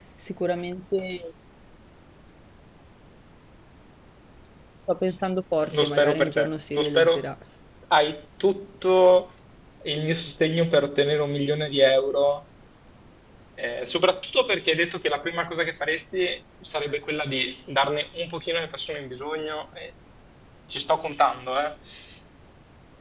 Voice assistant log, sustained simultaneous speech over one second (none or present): present